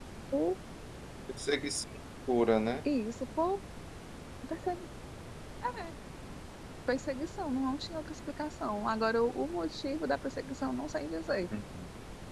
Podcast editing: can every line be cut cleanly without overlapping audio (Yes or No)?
Yes